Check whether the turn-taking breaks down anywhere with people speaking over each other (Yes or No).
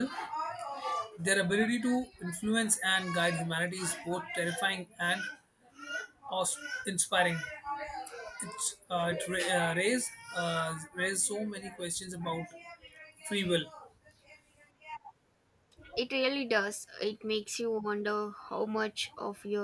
No